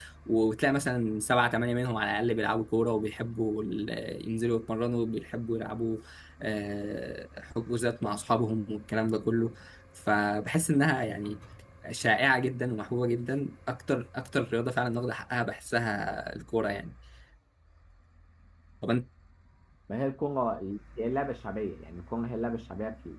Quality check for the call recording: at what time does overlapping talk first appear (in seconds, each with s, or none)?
none